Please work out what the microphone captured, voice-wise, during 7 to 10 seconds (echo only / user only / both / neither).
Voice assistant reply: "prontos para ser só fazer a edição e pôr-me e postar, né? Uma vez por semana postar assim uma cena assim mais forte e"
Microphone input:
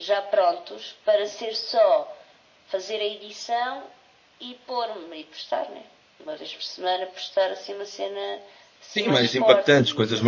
both